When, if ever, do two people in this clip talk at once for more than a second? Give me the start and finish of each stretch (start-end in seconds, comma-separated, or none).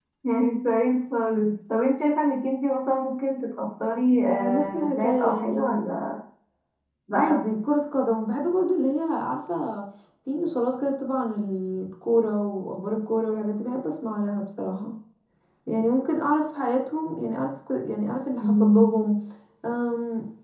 4.2-5.8